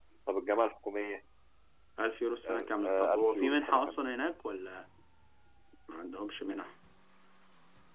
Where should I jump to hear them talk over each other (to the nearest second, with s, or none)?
2 s